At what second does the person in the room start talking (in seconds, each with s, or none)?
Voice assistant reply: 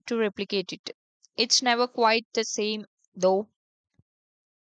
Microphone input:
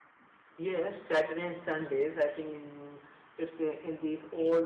0.6 s